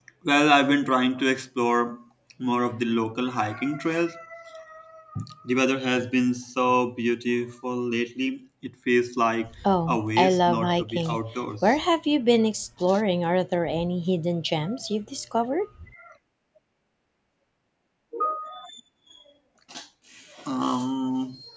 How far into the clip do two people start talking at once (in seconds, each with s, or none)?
9.9 s